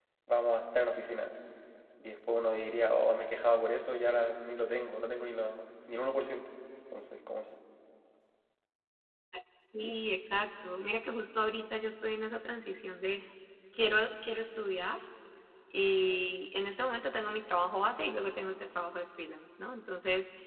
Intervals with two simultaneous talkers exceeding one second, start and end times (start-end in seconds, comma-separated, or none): none